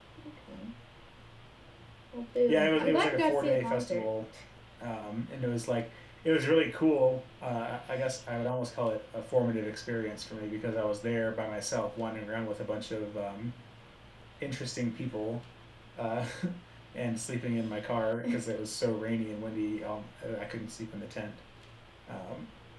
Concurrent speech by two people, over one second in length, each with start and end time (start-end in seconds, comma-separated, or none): 2.5-4.1